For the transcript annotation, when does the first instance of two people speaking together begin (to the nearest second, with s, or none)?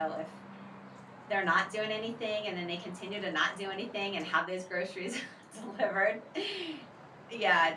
none